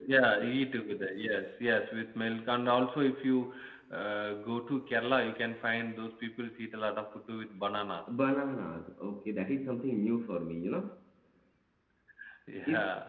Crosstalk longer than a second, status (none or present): none